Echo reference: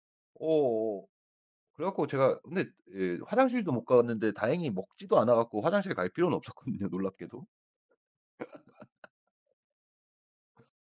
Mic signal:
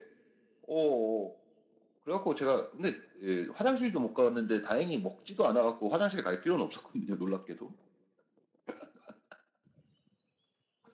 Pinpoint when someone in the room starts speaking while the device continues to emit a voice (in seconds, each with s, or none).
none